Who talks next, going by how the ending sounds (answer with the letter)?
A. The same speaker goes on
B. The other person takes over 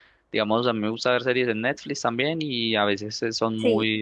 A